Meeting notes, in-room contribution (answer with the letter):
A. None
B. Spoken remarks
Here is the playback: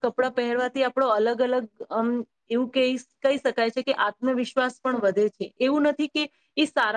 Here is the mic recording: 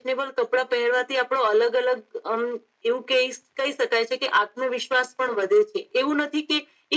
A